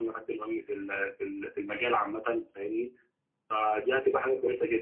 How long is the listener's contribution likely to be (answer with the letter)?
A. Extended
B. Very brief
B